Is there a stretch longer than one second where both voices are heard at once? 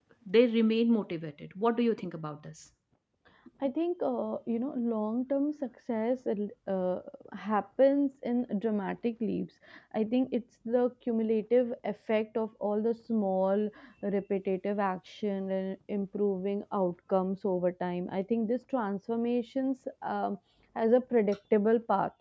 No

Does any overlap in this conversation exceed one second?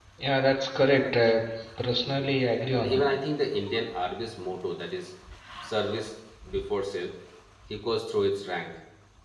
No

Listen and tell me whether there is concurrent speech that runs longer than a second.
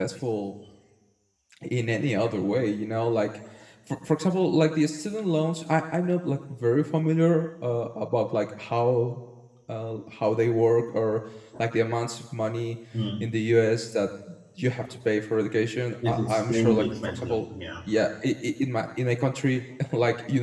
Yes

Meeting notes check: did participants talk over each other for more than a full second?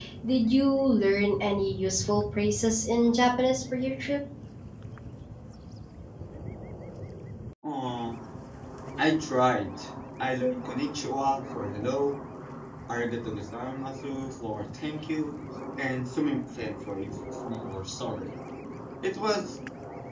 No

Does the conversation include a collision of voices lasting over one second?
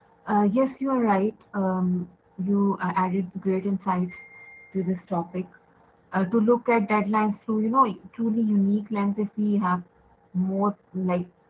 No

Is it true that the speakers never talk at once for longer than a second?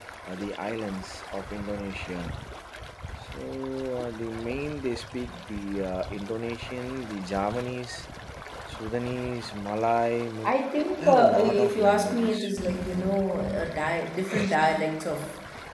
No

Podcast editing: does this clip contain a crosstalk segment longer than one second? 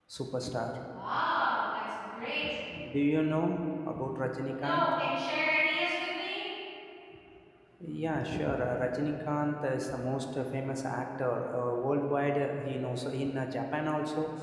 No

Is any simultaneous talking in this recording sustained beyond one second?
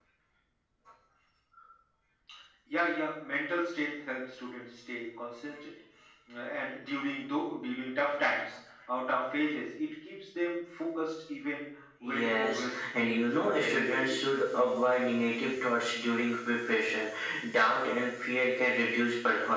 Yes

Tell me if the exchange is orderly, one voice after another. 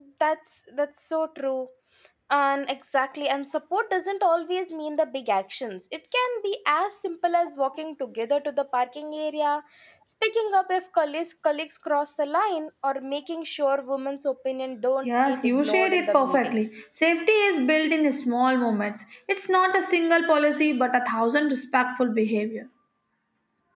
No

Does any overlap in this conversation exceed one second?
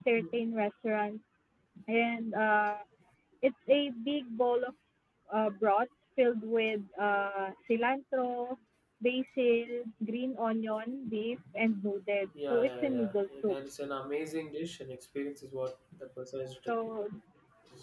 Yes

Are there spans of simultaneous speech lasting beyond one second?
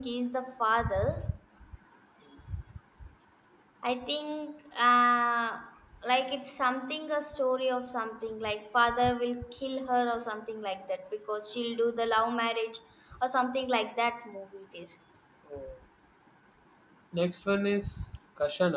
No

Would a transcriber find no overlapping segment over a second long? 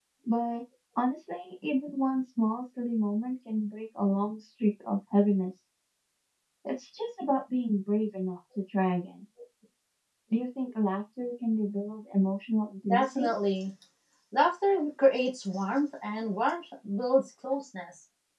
Yes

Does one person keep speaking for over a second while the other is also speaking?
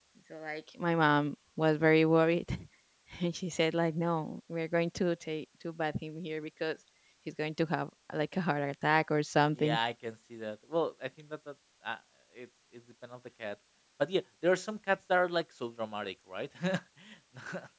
No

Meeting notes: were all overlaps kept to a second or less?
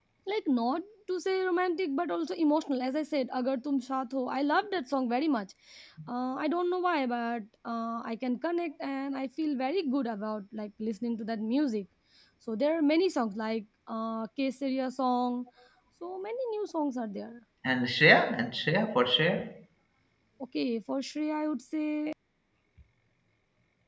Yes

